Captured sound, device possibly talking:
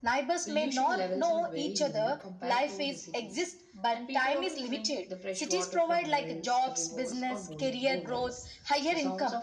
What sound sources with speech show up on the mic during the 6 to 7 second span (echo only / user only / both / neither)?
both